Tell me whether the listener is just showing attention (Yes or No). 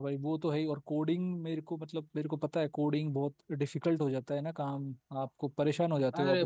No